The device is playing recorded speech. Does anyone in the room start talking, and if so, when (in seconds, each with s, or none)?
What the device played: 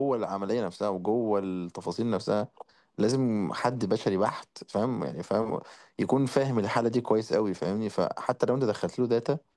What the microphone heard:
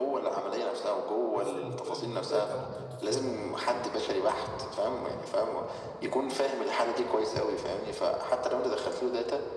1.3 s